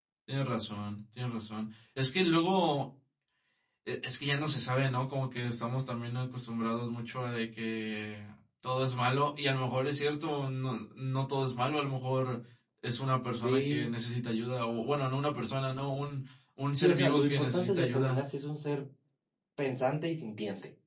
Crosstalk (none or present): present